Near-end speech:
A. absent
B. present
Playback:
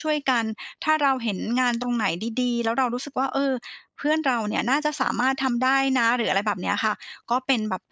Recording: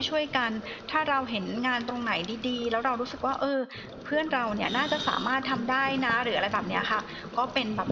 A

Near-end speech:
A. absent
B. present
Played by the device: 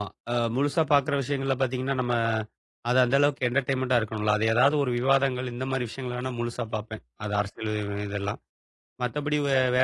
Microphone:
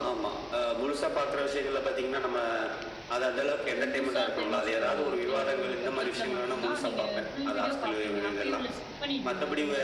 B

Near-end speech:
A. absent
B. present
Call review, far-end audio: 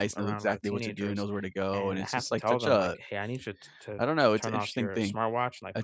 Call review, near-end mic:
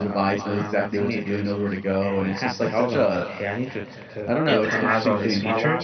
B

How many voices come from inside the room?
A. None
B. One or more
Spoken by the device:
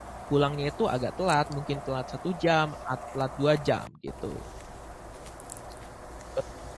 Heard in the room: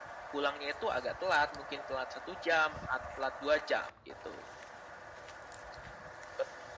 A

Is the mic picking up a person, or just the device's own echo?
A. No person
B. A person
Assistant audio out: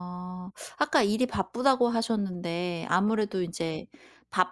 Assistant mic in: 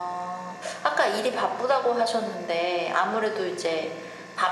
A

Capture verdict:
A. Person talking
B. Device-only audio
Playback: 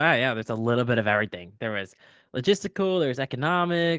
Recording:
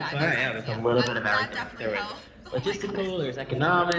A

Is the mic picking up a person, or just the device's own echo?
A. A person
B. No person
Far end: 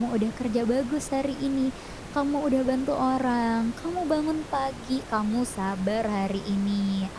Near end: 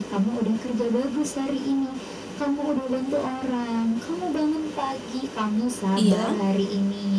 A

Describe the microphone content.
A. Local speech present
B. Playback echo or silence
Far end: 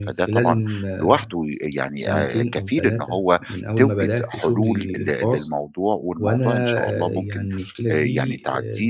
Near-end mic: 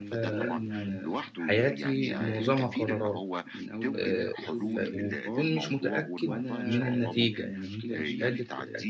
A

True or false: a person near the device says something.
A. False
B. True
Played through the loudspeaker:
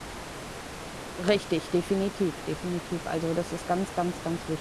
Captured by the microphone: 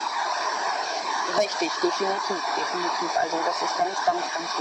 A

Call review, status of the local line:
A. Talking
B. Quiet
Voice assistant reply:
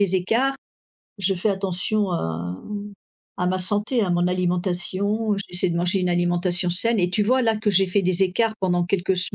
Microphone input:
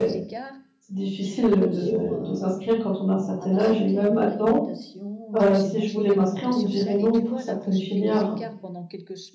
A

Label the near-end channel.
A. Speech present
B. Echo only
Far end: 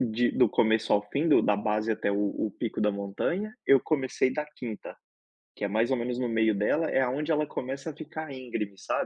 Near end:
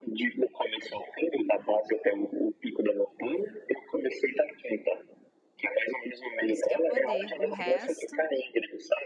A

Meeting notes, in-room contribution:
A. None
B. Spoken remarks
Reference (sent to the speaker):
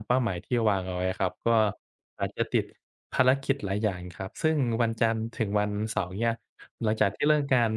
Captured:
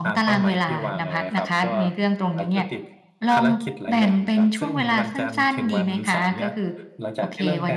B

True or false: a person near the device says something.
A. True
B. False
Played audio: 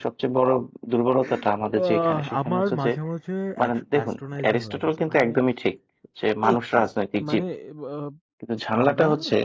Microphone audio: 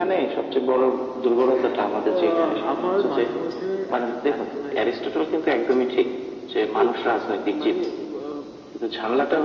B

